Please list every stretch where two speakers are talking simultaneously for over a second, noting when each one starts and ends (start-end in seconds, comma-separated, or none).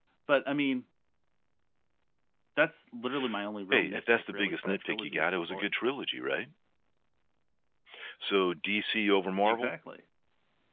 3.7-5.8